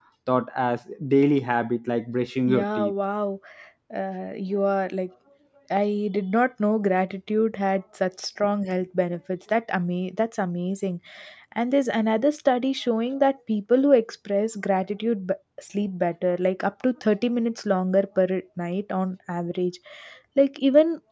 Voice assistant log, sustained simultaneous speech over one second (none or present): none